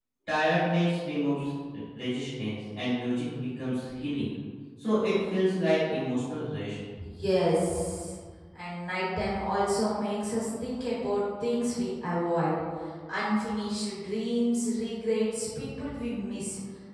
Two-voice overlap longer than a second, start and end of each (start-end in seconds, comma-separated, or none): none